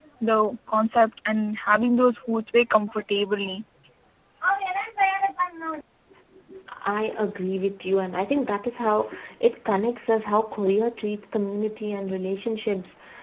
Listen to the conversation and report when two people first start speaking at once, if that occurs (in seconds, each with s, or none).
none